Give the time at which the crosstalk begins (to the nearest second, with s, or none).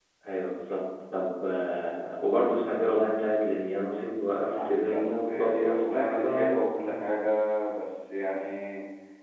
5 s